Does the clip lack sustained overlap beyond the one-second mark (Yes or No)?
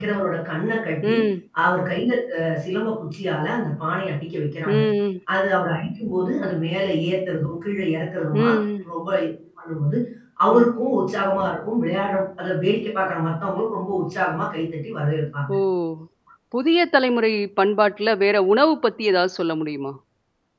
Yes